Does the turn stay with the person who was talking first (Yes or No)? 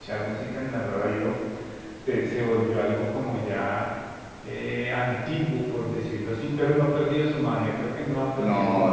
No